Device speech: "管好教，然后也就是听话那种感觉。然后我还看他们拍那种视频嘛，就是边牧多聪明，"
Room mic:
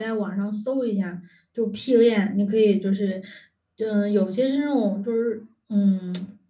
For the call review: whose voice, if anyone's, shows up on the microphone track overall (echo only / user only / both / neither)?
user only